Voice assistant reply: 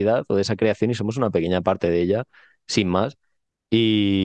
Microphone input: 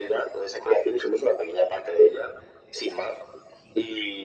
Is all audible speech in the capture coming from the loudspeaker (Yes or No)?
Yes